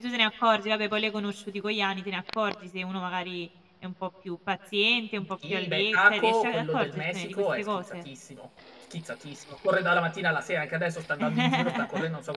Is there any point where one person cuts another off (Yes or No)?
Yes